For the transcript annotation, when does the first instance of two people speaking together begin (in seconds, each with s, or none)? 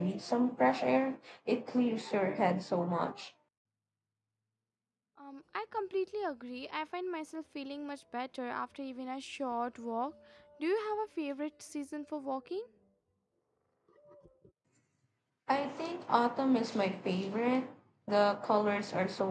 none